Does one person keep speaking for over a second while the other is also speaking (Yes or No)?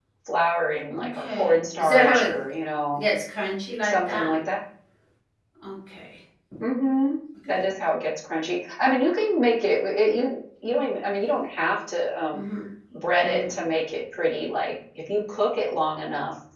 Yes